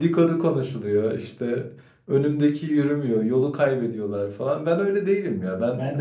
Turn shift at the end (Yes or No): Yes